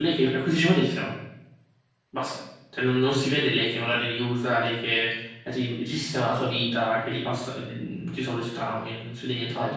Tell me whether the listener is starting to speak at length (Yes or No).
Yes